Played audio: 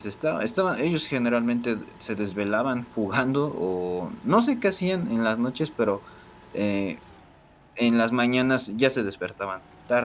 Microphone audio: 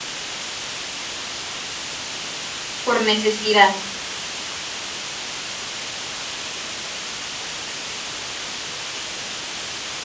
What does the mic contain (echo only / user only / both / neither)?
user only